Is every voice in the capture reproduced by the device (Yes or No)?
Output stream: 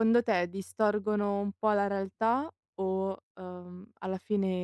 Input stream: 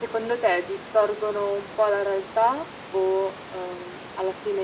Yes